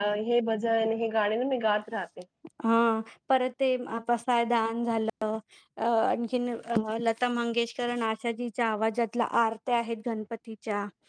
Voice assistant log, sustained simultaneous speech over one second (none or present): none